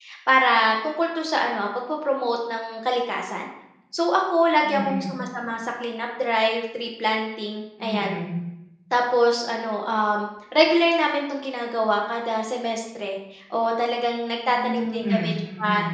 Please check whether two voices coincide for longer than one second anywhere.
Yes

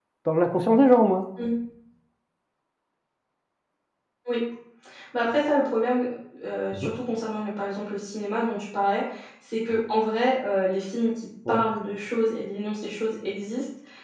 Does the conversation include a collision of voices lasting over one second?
No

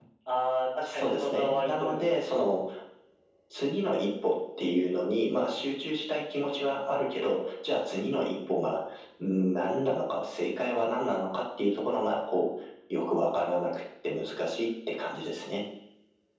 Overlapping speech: Yes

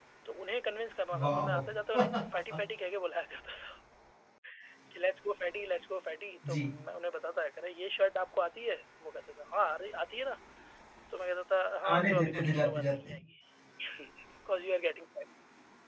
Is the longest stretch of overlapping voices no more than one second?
No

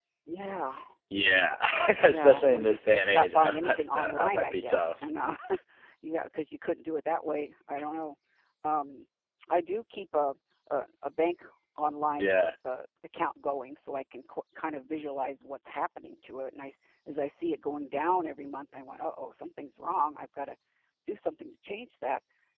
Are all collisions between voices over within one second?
No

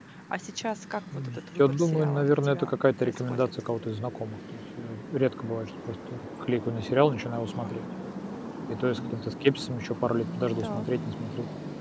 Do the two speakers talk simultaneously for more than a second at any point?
Yes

